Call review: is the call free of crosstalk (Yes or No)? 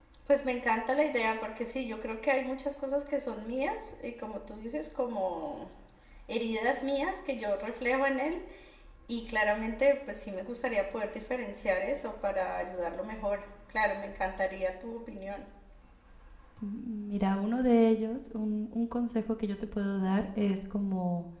Yes